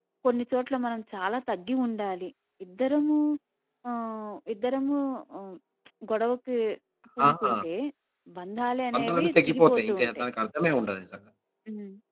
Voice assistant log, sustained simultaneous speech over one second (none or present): present